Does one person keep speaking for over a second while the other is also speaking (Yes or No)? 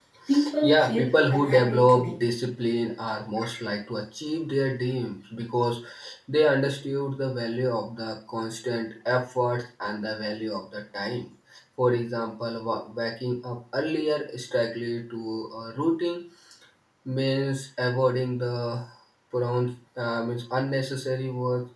Yes